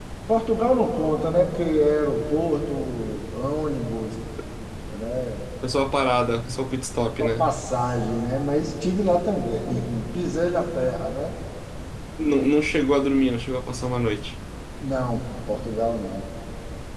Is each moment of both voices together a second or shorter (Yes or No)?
Yes